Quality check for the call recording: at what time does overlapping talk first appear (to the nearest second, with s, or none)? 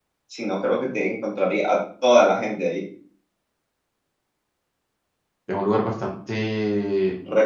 none